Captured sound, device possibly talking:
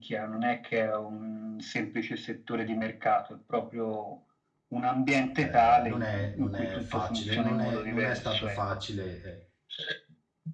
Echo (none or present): present